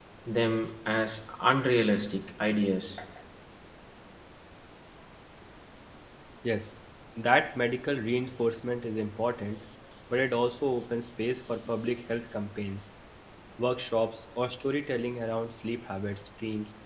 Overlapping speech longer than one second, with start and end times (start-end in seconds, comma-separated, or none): none